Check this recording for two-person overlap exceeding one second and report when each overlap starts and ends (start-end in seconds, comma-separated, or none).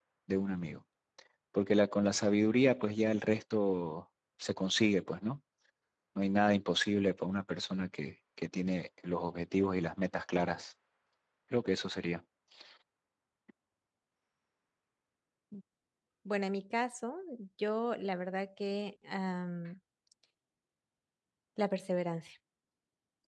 none